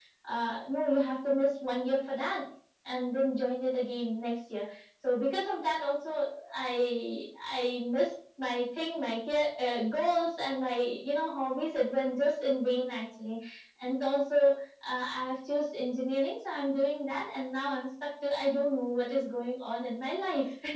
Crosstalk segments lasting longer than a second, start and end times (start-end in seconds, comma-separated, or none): none